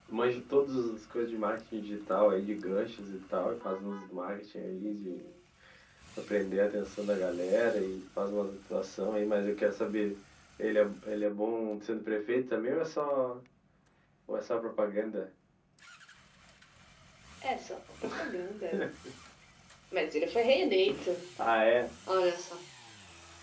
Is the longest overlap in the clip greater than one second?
No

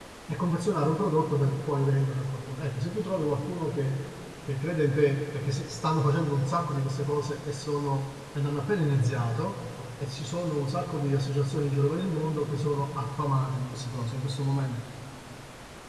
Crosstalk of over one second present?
No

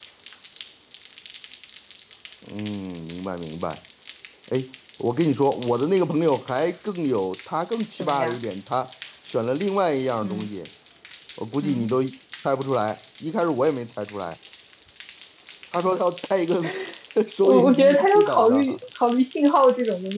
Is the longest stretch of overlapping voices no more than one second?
No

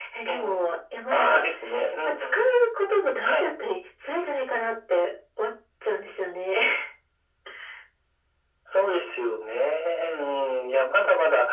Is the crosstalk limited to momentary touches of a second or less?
Yes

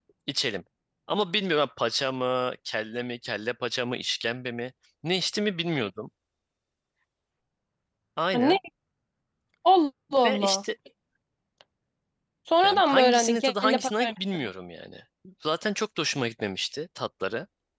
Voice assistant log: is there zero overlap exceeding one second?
No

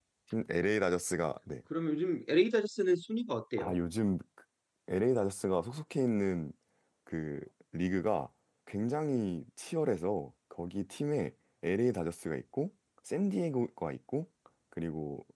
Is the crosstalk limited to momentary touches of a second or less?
Yes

